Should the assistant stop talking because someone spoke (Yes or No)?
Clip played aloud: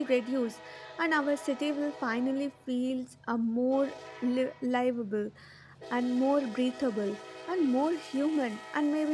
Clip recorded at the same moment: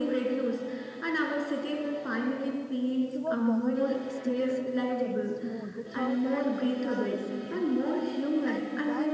Yes